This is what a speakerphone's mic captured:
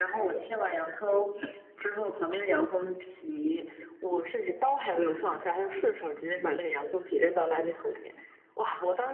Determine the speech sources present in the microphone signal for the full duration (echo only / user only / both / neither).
echo only